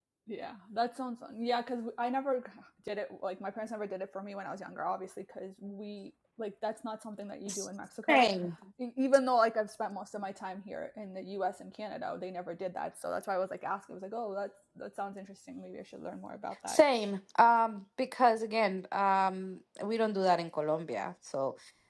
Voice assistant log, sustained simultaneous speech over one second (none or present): none